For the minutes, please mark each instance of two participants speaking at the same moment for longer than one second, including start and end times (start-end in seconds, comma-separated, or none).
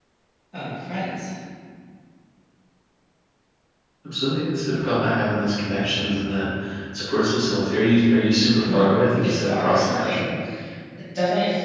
8.6-10.2